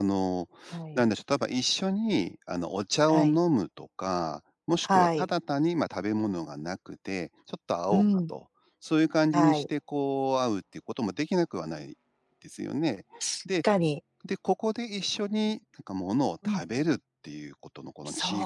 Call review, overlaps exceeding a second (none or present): none